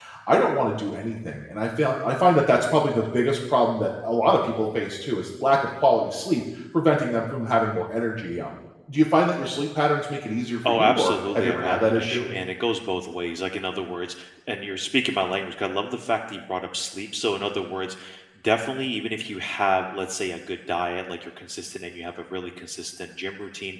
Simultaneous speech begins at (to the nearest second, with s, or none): 11 s